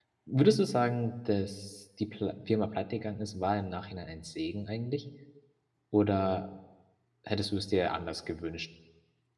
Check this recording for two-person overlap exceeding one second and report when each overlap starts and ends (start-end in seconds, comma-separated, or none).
none